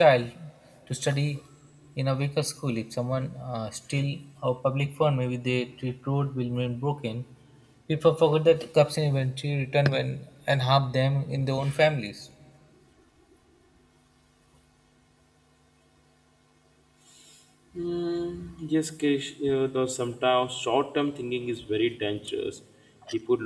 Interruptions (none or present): none